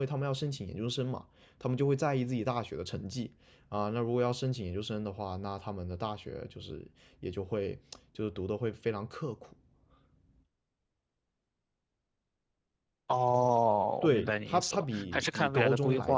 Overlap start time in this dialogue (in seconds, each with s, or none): 14.0 s